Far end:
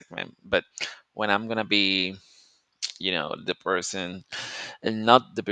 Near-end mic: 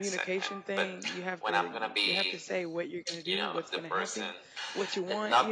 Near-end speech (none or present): present